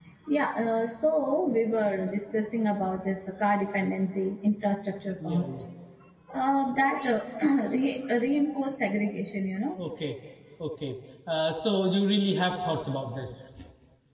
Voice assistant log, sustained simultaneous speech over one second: none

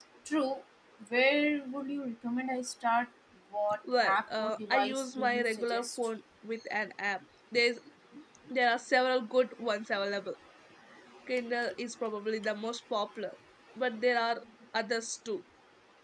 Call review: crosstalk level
present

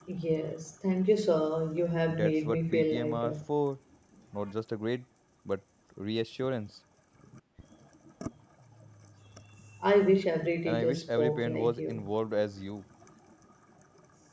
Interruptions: present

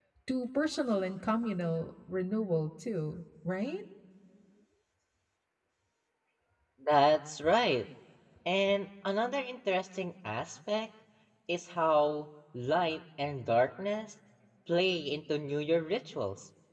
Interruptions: none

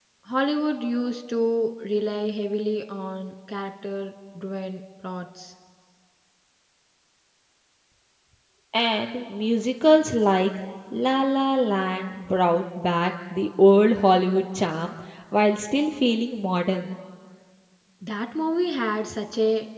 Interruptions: none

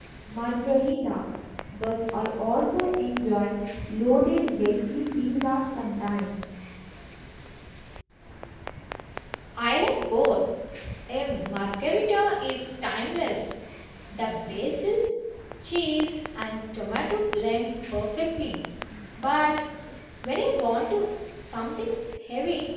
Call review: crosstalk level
none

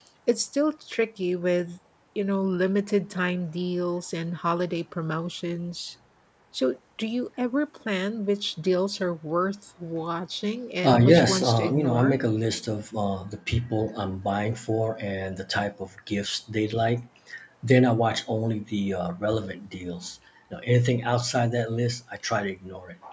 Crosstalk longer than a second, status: present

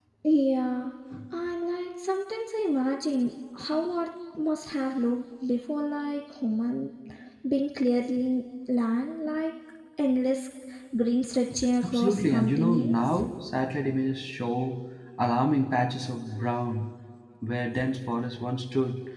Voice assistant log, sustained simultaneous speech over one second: present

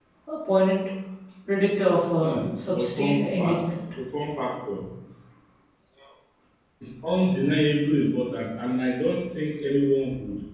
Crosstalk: present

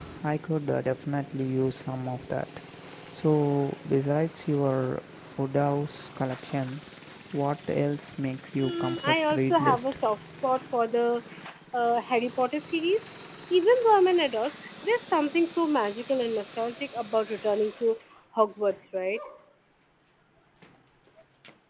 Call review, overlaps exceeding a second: present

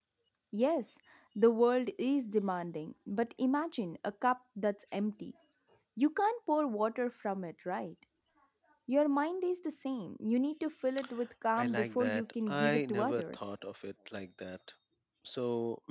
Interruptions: present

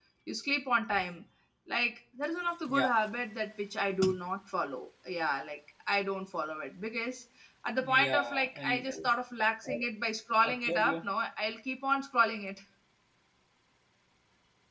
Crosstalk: present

